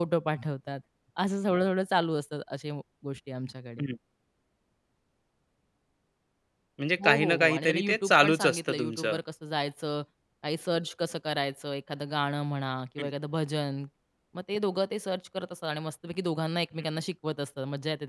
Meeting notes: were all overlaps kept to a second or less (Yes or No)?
No